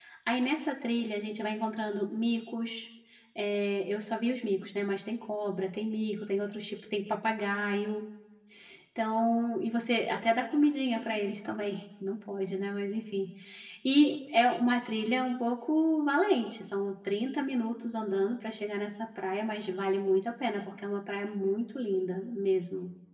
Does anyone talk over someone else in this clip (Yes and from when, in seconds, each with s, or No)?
No